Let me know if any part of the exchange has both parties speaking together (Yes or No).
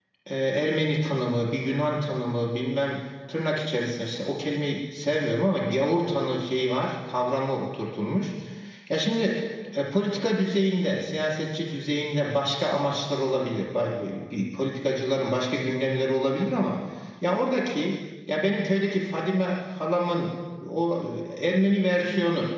No